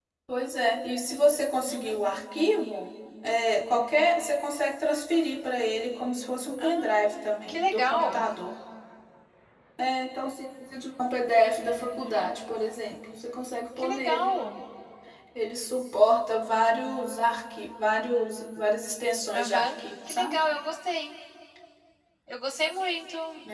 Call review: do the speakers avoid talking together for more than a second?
No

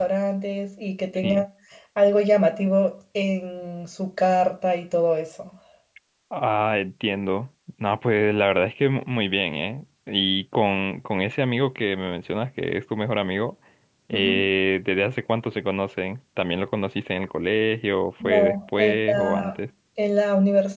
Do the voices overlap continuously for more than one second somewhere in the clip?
Yes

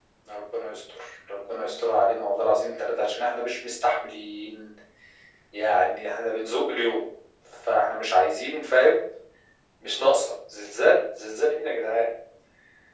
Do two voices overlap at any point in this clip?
No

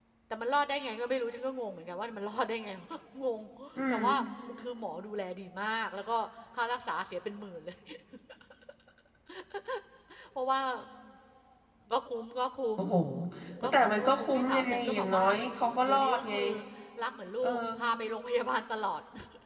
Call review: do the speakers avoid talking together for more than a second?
No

